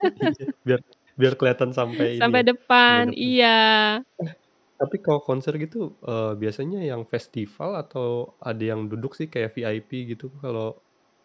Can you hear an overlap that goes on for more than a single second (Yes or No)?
No